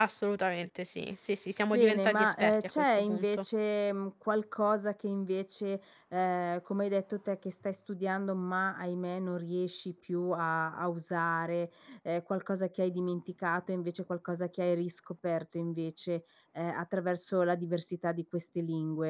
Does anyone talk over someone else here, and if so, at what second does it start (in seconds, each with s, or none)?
1.7 s